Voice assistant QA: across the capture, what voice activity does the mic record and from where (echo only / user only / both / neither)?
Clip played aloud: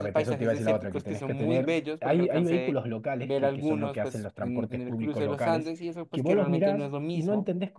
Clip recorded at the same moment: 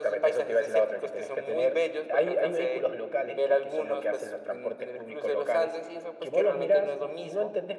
echo only